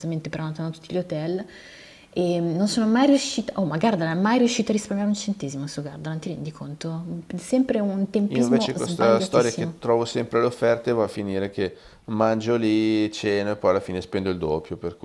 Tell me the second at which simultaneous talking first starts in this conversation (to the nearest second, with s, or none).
8 s